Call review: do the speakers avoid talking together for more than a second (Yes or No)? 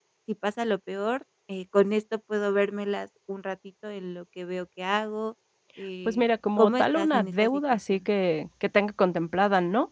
No